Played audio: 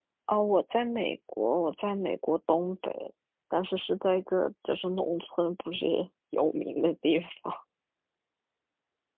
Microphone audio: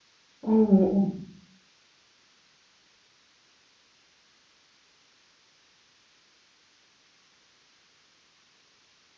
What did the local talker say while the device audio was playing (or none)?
哦